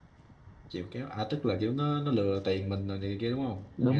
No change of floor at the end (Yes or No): No